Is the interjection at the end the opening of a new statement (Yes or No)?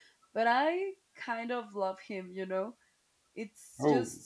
No